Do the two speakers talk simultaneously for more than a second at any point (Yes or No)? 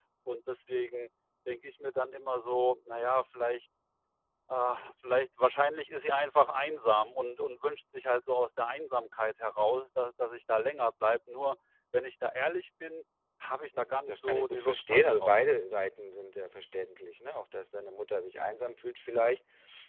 Yes